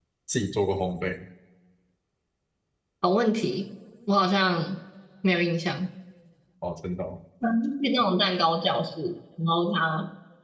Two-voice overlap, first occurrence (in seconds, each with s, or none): none